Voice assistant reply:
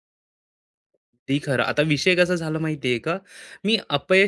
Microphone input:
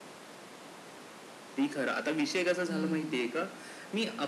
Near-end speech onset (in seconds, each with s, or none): 2.7 s